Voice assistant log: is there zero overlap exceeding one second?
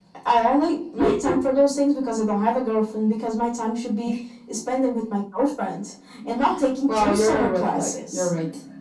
No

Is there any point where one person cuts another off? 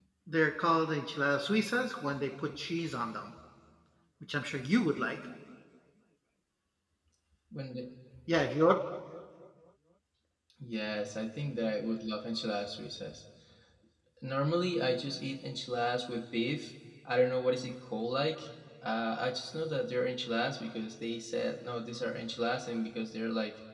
No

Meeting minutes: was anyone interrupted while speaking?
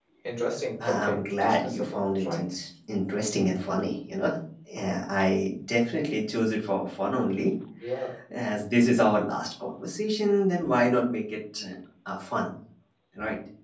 Yes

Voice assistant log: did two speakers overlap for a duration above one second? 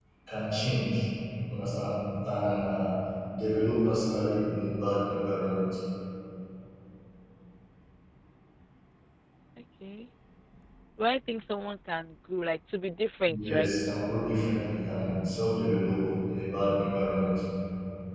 No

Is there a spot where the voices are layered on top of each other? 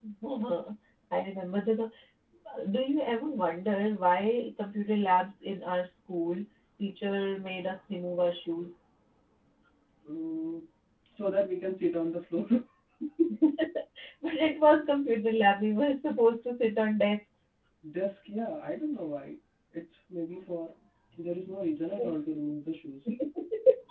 No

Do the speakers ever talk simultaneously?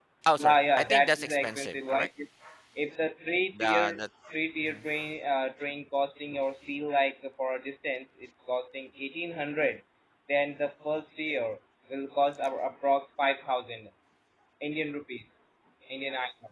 Yes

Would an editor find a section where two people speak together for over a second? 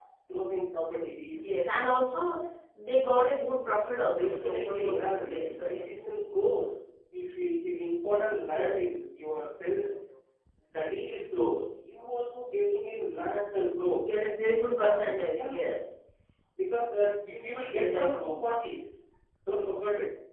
Yes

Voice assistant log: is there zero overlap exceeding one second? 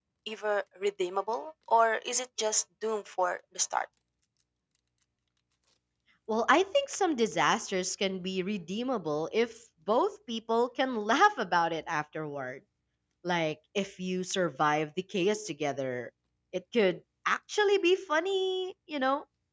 Yes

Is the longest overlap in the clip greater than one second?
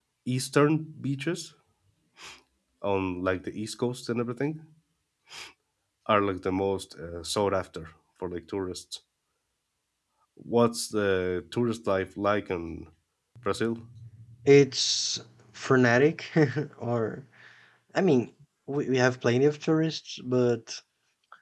No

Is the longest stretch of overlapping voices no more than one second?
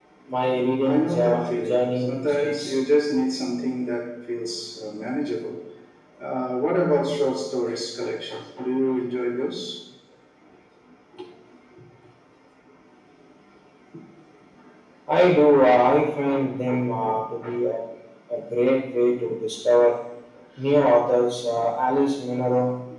No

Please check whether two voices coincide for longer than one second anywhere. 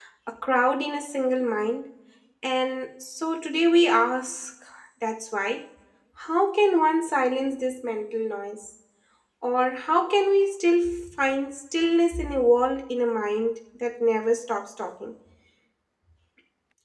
No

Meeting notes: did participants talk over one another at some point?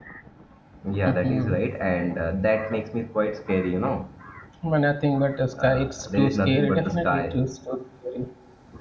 Yes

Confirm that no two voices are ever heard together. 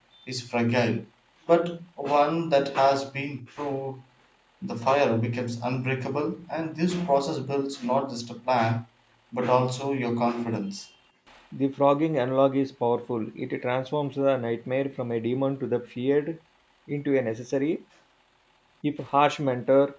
Yes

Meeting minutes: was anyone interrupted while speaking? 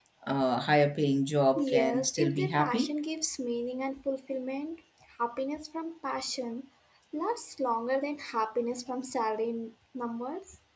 Yes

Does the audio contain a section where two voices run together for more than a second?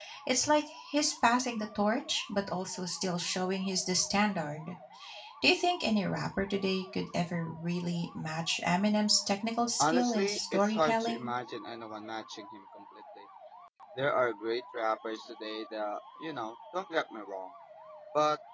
Yes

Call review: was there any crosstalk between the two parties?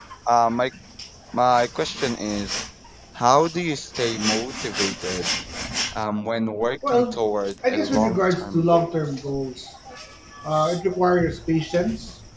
Yes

